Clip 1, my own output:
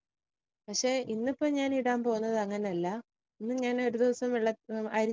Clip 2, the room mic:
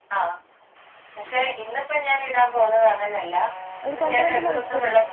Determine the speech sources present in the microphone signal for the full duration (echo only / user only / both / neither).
both